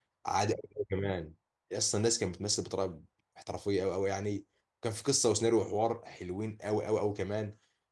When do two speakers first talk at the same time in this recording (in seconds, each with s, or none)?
none